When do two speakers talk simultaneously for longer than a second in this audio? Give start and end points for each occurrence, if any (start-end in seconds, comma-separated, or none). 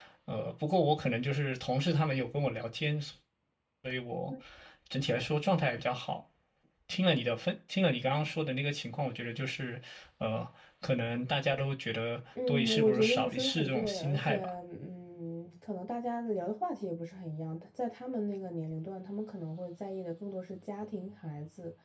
12.5-14.4